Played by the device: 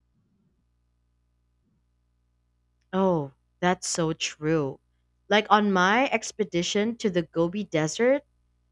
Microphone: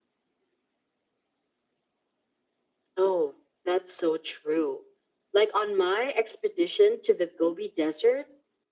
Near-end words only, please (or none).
none